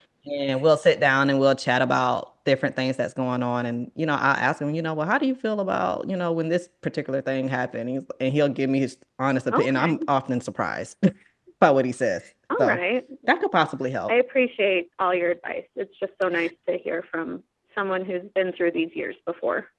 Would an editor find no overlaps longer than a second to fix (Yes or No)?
Yes